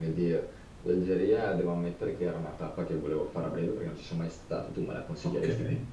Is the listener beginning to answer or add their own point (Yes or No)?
Yes